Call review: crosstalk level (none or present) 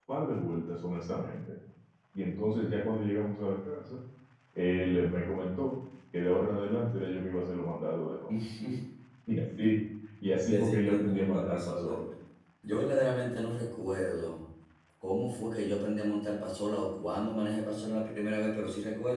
present